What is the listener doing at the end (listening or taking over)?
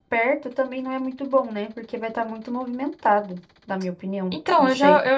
taking over